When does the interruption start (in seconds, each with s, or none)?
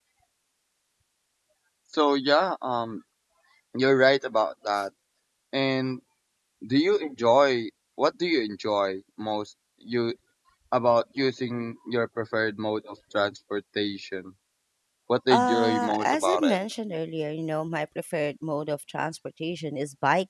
15.3 s